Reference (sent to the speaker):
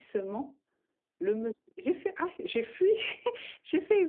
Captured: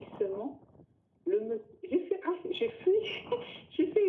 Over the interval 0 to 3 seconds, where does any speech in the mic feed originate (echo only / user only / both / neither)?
echo only